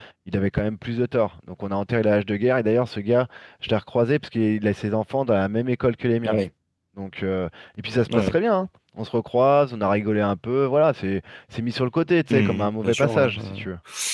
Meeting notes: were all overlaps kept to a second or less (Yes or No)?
No